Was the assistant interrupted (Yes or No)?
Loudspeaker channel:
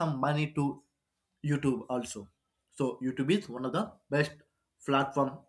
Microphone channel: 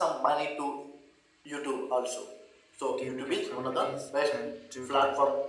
Yes